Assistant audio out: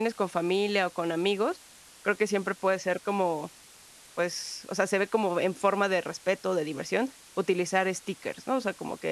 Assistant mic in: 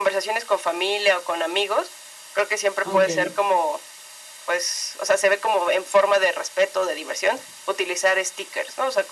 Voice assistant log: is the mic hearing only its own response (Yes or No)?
No